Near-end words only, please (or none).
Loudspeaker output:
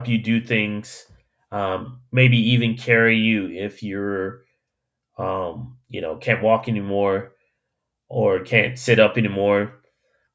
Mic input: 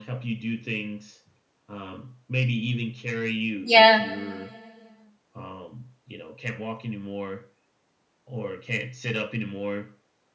yeah.